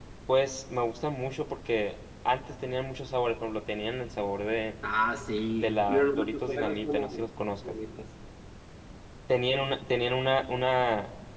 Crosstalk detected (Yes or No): Yes